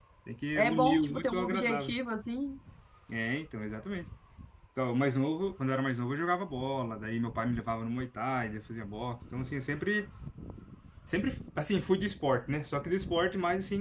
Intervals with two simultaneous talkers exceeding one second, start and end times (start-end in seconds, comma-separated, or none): 0.6-1.9